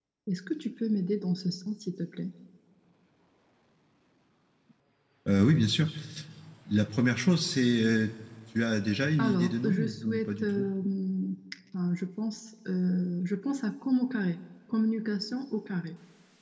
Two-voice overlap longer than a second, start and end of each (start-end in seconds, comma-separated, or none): 9.2-10.7